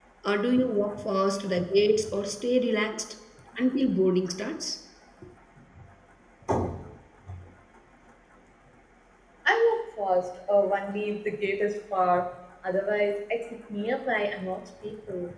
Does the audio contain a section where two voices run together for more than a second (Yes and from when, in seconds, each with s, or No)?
No